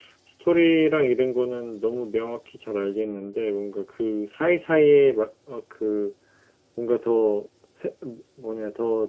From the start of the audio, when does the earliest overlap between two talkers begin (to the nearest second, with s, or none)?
none